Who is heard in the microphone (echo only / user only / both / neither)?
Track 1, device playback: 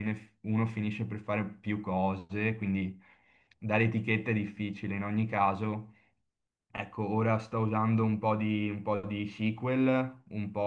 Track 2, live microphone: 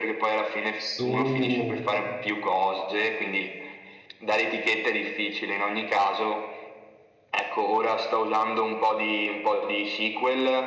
both